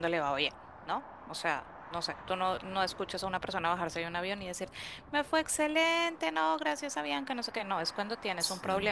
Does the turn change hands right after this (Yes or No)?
No